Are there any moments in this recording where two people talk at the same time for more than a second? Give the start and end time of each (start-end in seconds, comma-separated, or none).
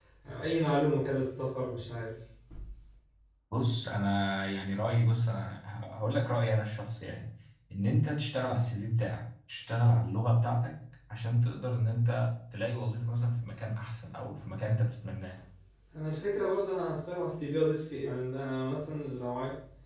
none